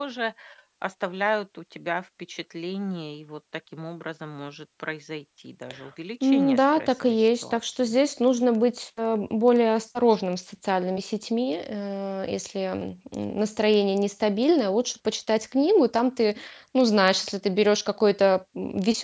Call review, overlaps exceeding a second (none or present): present